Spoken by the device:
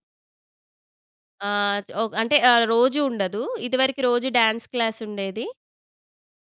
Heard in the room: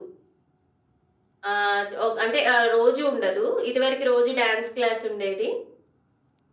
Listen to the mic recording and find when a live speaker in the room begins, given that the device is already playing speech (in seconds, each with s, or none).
none